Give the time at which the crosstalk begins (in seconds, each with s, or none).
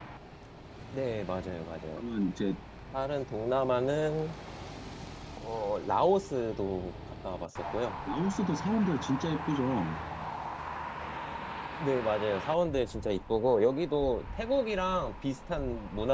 none